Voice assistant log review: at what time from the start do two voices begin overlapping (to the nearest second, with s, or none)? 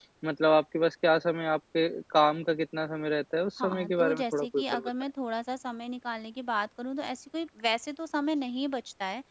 4 s